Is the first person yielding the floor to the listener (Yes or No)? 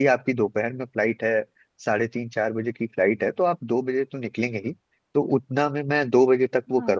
No